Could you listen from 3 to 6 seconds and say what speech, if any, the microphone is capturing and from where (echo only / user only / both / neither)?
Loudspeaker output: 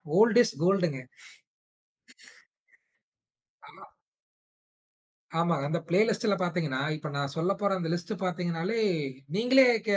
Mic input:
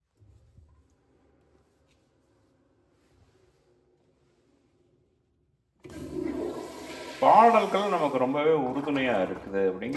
neither